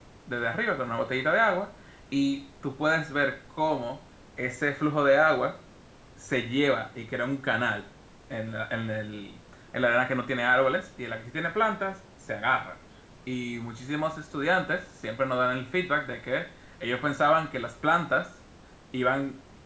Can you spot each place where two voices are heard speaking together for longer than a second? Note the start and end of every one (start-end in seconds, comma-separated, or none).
none